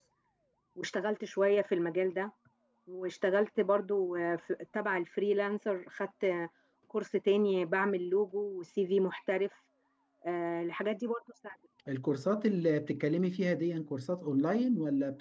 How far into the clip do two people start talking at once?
none

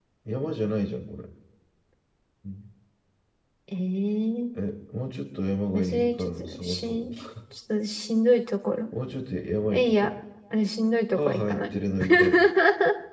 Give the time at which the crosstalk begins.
5.7 s

